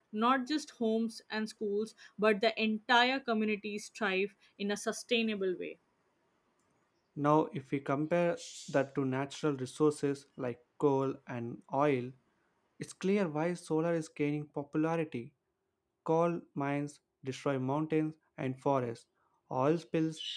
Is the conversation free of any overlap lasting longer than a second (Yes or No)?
Yes